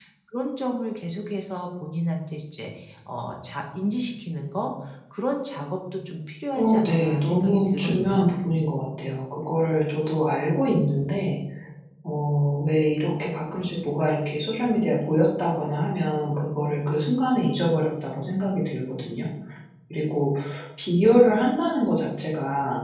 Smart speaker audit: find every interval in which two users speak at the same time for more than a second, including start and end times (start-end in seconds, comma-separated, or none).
6.5-8.3